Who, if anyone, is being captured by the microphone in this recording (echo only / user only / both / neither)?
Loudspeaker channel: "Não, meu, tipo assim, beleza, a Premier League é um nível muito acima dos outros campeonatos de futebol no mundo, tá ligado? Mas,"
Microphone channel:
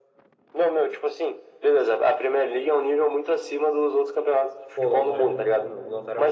both